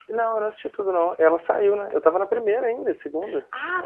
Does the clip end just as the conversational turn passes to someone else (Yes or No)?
Yes